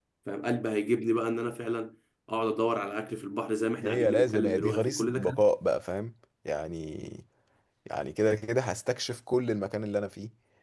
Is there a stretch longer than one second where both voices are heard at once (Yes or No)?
Yes